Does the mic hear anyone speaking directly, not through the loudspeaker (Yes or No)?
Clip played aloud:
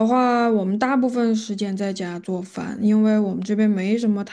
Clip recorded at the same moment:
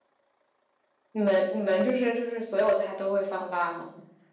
Yes